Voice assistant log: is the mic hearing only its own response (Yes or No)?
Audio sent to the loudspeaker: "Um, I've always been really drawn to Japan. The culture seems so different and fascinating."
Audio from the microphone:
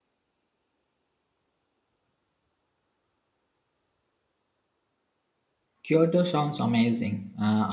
No